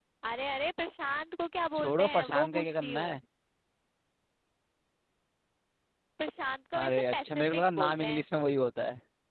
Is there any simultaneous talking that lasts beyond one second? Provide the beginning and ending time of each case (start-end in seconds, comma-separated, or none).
1.8-3.2, 6.8-8.2